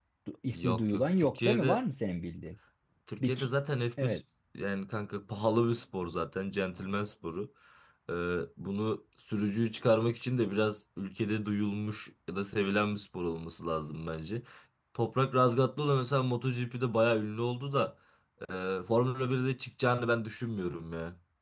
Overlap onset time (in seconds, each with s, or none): 0.5 s